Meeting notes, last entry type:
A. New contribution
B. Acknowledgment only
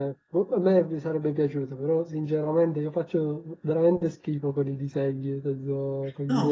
A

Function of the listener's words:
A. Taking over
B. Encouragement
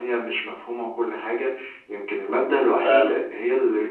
B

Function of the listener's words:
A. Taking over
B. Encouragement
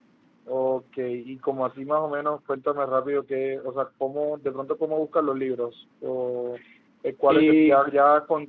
B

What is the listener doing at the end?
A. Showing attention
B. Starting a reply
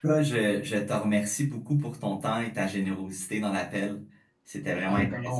B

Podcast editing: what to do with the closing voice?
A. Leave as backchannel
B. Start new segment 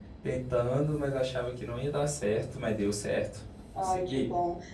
B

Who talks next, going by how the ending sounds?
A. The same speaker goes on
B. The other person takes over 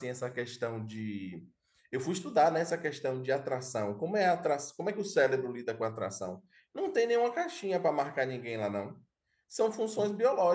A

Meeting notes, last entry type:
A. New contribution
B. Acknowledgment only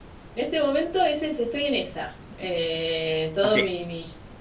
A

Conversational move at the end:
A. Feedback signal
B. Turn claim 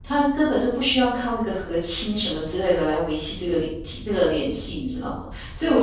A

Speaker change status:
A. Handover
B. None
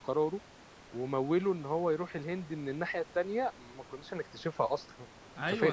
A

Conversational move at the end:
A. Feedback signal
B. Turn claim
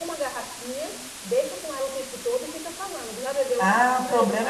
B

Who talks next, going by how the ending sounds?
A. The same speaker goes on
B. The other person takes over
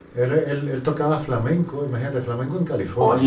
B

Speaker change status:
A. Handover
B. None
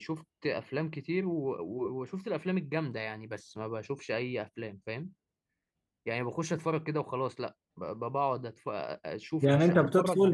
A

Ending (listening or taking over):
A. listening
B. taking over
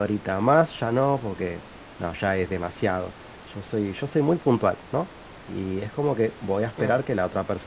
A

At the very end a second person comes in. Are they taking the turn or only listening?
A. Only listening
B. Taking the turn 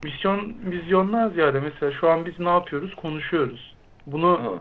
A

